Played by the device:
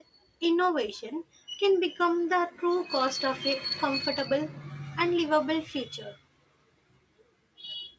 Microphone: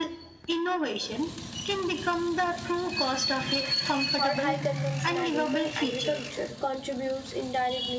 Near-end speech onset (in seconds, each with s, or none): 4.2 s